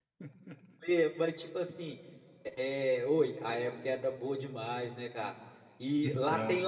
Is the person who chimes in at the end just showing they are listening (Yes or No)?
Yes